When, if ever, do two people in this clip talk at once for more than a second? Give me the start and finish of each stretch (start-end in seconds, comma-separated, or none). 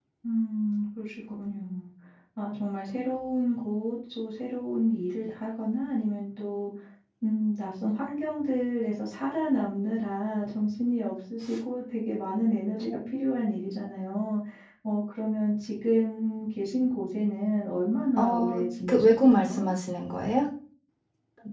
18.2-19.7